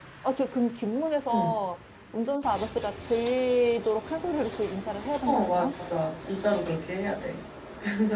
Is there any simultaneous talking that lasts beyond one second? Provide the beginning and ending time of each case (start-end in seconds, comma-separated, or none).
none